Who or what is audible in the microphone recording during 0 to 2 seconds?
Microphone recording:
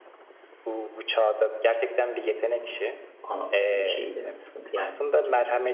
echo only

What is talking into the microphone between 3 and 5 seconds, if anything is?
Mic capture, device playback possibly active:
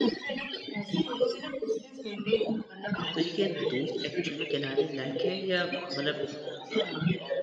both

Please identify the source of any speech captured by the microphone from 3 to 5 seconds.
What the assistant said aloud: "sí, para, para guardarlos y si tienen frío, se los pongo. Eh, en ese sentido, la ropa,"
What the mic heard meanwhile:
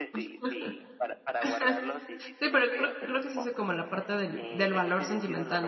both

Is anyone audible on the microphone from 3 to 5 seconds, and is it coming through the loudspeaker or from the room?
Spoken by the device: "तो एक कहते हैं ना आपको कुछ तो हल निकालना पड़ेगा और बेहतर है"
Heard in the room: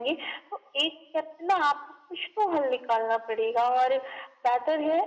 echo only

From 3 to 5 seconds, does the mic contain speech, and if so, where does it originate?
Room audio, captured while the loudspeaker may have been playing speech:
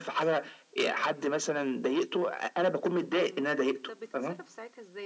both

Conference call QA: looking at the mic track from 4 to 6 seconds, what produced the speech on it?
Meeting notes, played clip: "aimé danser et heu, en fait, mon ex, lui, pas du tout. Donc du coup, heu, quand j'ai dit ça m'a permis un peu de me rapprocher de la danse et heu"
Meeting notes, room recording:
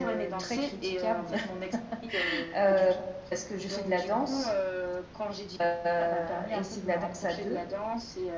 both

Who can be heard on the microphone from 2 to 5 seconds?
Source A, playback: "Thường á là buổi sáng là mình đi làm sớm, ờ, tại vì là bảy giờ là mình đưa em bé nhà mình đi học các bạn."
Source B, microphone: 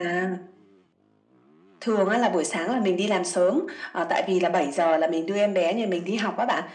echo only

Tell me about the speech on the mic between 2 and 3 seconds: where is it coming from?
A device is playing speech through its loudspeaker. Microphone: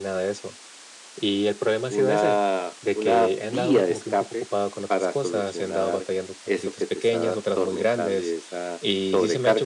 both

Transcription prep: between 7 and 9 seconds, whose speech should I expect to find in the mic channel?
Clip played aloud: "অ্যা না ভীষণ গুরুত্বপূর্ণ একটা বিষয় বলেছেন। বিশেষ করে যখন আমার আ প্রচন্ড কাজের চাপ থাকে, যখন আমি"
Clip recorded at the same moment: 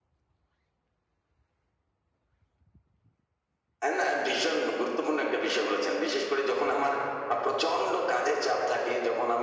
echo only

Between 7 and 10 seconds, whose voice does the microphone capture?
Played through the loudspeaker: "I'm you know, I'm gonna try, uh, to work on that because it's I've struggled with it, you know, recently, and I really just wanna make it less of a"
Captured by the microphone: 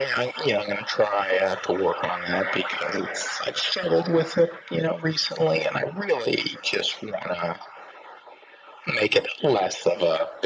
echo only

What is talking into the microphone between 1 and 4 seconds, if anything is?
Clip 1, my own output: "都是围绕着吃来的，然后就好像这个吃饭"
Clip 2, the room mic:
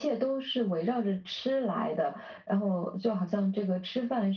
echo only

